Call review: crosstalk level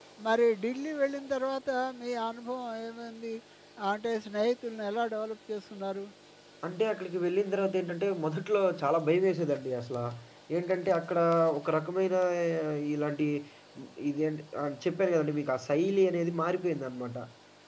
none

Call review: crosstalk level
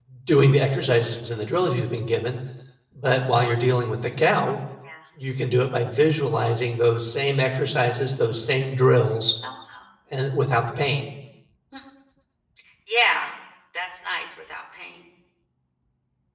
none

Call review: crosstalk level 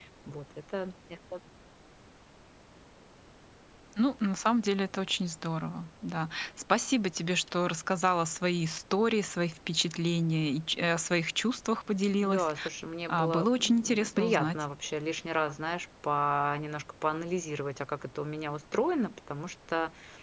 present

